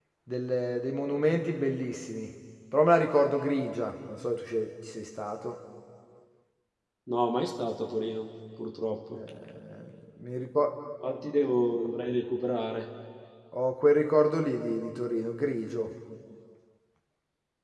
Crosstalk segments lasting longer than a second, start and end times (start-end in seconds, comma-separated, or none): none